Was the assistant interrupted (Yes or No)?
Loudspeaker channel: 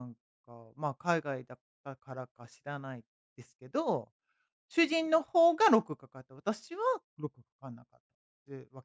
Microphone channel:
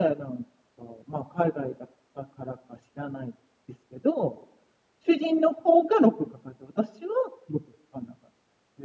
No